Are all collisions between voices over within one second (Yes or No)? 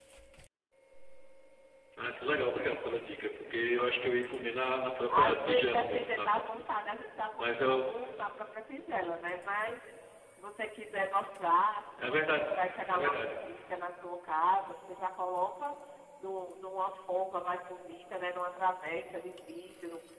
No